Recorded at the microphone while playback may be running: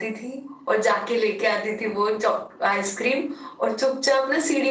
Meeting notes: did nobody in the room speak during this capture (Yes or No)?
Yes